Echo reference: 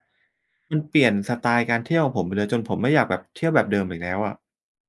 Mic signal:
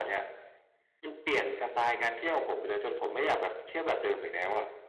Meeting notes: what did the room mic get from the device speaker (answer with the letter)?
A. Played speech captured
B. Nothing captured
A